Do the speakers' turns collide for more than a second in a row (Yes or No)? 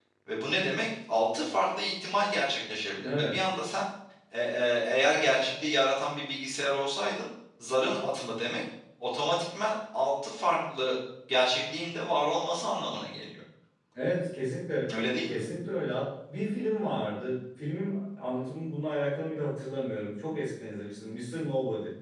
No